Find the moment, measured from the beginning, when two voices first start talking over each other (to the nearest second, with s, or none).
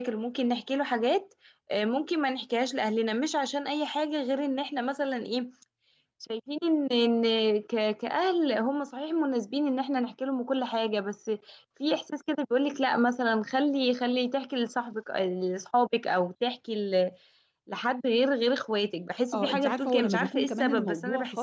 19 s